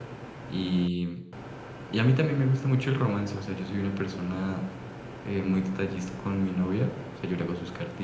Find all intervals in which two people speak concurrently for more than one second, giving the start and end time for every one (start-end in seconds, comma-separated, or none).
none